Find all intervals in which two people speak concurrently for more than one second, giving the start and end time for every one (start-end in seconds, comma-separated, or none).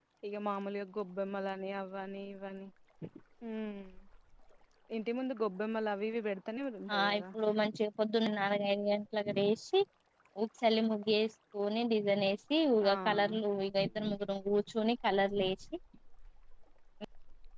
none